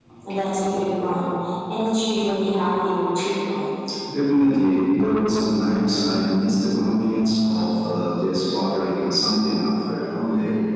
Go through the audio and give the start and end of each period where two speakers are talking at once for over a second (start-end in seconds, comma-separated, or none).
none